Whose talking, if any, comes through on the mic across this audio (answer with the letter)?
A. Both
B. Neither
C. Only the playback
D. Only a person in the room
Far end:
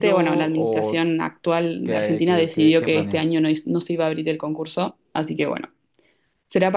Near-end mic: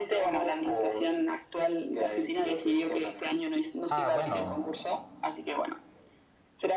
A